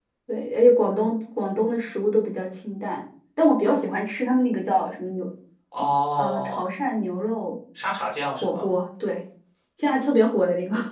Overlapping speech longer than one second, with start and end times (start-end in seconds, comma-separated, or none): none